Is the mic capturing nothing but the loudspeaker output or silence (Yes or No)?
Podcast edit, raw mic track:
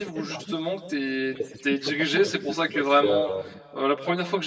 No